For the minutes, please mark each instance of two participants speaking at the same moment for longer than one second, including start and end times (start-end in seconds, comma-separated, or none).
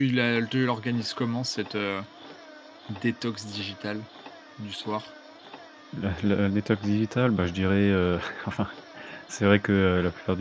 none